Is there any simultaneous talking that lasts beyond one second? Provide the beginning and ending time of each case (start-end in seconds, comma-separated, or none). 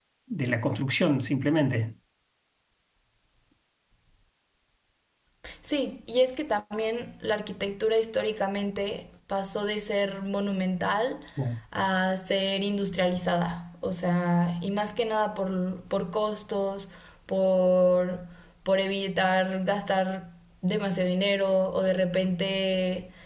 none